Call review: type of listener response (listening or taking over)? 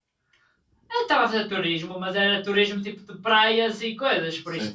taking over